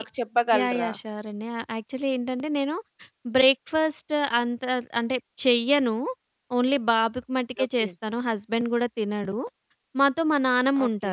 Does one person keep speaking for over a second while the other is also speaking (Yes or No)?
No